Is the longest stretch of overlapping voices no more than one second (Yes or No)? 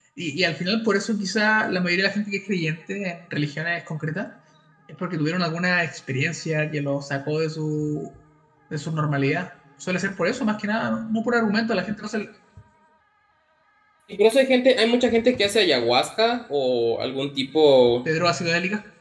Yes